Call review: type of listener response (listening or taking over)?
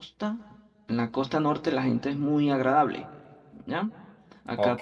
taking over